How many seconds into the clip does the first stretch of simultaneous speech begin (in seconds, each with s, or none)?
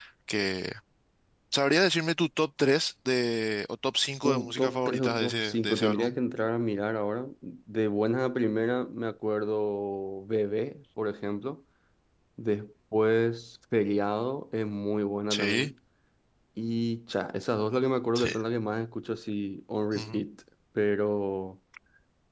4.2 s